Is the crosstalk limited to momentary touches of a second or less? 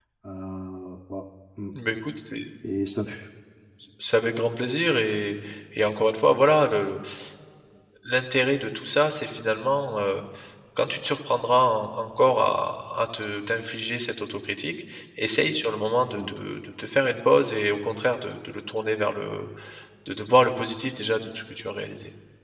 Yes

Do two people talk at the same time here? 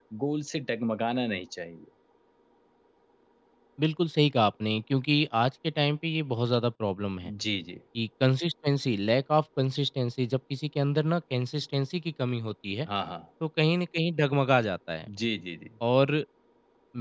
No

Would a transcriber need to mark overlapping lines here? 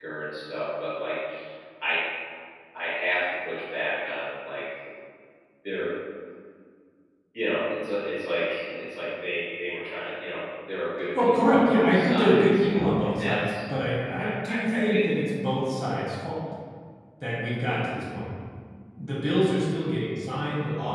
Yes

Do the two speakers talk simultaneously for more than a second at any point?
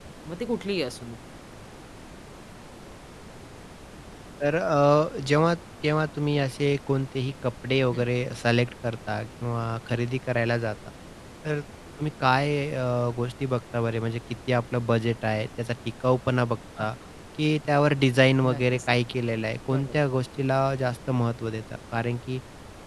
No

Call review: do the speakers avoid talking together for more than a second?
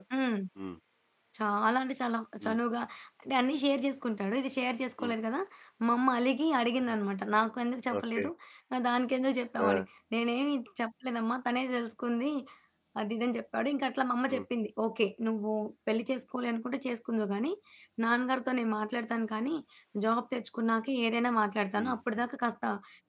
Yes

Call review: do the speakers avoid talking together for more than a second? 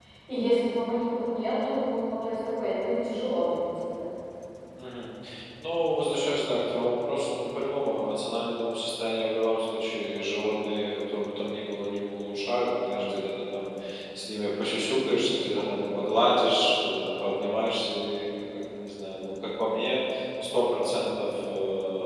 Yes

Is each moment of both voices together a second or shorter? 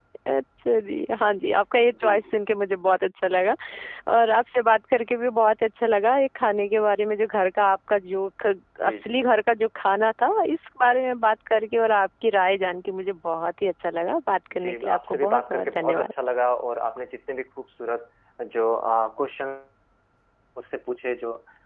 No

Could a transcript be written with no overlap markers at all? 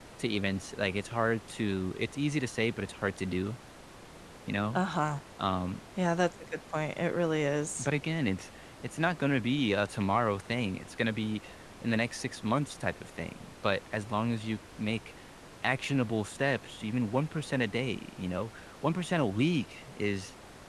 Yes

